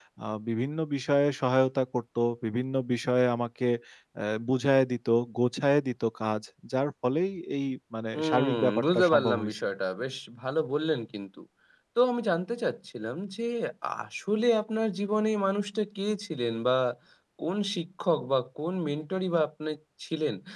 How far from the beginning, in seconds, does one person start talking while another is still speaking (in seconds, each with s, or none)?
8.1 s